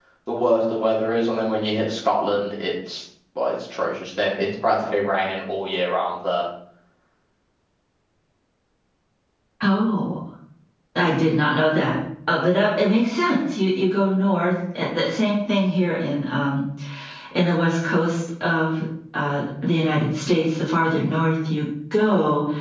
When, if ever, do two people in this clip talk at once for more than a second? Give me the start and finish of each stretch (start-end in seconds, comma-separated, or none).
none